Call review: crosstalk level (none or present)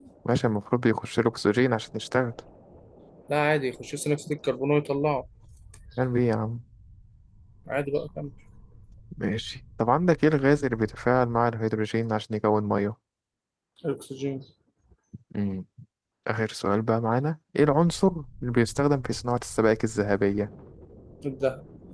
none